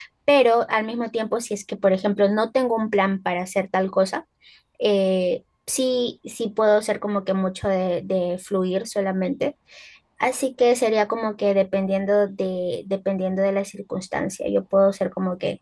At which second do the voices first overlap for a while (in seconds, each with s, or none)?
none